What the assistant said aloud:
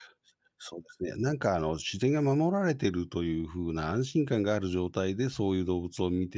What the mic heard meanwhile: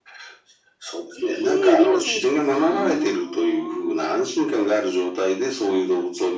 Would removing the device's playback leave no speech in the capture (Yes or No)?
No